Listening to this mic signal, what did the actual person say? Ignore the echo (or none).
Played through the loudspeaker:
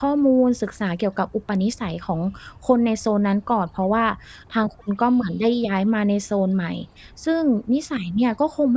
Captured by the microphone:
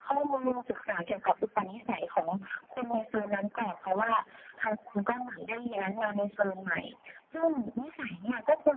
none